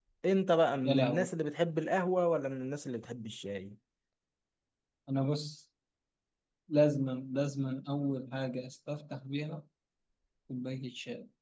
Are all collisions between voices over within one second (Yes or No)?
Yes